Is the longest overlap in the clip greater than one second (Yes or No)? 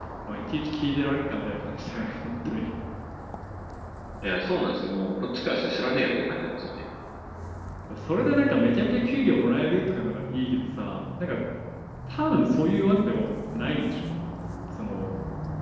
No